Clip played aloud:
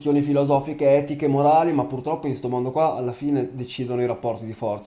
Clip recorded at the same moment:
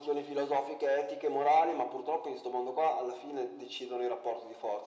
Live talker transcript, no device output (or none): none